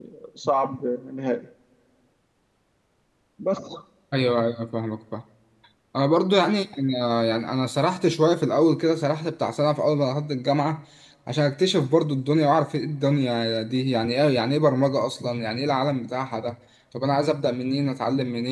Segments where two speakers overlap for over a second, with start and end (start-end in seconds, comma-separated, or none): none